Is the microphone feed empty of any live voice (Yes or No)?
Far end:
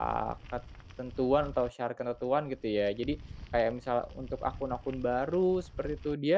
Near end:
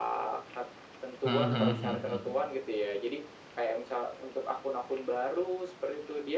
No